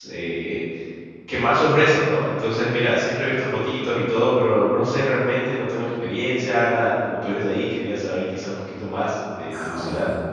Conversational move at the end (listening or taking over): taking over